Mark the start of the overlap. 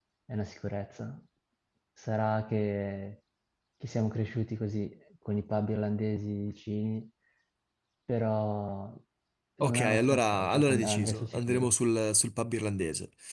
9.6 s

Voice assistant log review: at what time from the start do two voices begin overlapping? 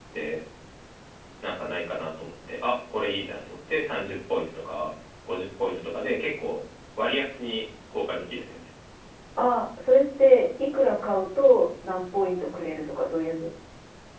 none

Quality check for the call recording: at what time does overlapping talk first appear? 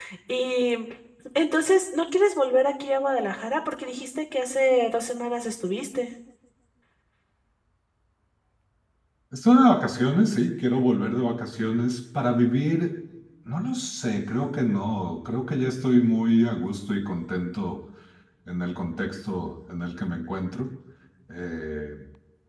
none

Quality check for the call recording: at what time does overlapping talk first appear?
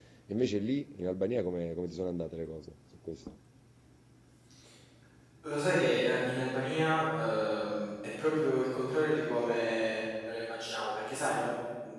none

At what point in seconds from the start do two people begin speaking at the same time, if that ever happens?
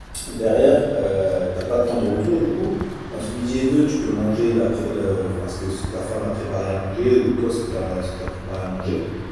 none

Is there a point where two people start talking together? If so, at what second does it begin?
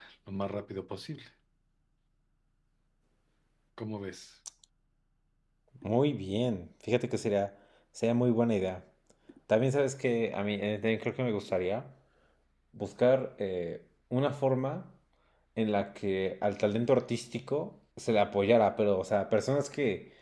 none

